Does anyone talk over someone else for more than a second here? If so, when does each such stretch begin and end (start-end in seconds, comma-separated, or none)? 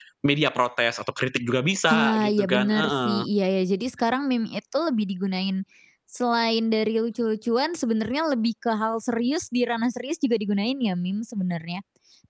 1.9-3.2